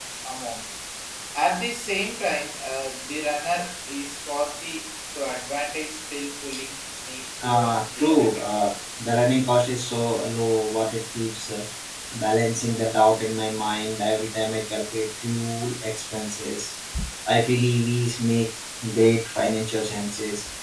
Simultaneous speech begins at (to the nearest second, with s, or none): 7 s